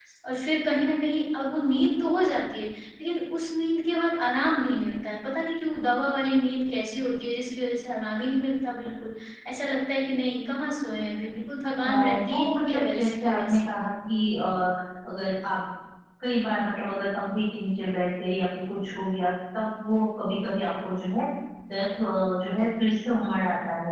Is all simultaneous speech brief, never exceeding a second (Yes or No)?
No